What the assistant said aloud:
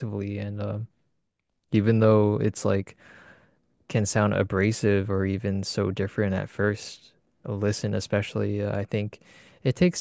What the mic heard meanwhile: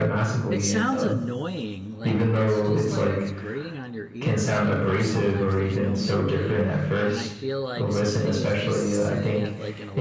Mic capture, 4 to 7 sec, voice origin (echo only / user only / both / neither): both